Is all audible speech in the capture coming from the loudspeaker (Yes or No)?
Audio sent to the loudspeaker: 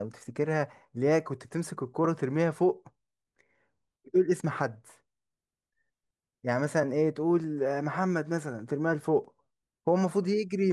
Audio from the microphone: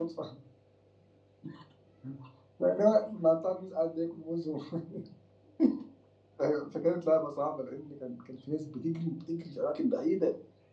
No